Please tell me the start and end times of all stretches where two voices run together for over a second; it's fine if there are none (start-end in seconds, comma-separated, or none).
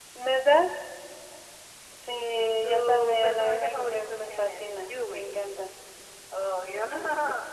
2.4-5.4